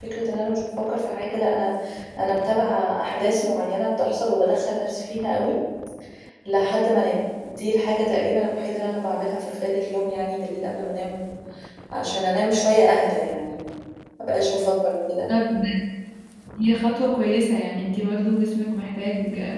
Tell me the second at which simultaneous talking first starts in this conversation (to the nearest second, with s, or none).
none